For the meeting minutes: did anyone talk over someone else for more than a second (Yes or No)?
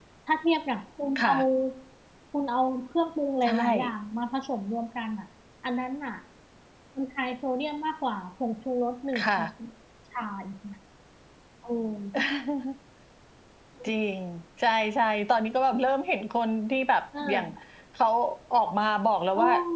No